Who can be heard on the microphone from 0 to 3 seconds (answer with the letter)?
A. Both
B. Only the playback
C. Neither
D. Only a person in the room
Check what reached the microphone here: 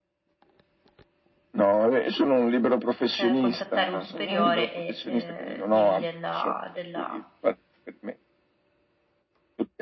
B